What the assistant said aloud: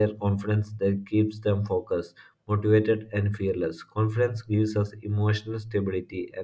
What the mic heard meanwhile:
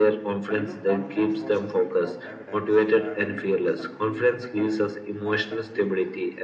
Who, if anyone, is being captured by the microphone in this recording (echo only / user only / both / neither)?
both